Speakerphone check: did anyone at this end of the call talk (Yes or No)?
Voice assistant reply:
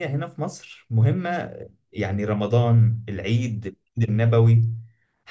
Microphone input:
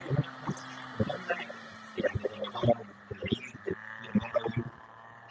No